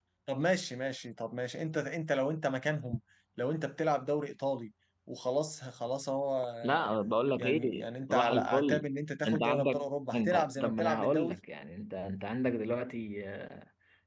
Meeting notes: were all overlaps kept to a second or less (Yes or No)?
No